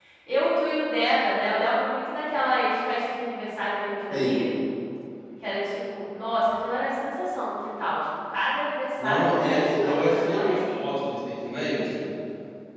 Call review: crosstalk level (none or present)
present